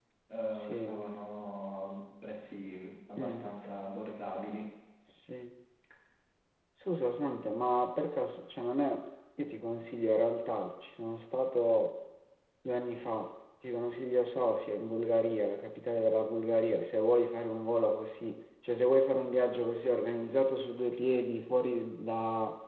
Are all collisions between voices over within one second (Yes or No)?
Yes